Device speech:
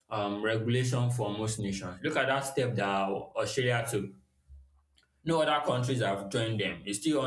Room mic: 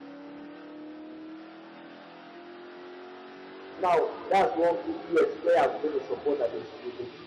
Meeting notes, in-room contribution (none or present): present